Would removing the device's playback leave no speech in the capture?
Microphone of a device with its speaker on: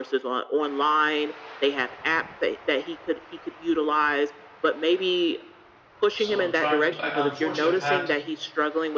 No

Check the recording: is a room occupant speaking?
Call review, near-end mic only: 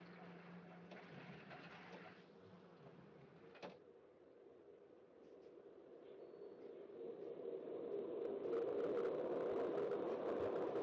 No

